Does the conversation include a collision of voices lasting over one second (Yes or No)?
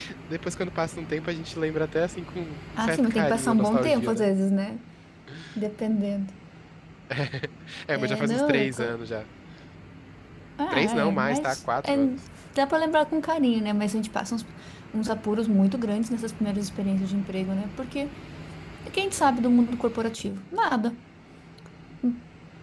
Yes